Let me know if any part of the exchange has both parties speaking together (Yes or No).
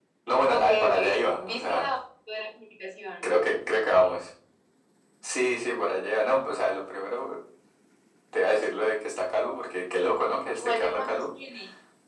Yes